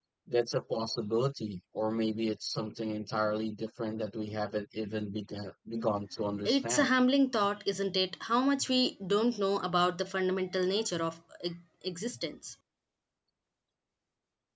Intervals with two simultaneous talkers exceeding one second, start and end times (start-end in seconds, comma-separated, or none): none